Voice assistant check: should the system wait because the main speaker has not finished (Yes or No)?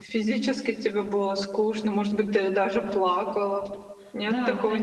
No